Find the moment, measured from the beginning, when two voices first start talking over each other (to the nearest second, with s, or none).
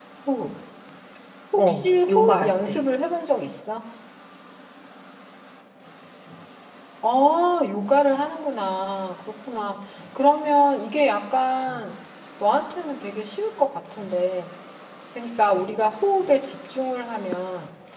2 s